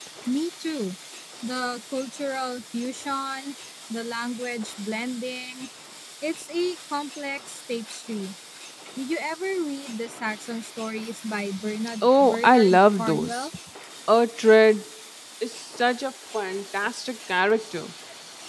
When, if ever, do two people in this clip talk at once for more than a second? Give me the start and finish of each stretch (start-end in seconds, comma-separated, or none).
12.0-13.5